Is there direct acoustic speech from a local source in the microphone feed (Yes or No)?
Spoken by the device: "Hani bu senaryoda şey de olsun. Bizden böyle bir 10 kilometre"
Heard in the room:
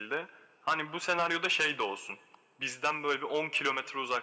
No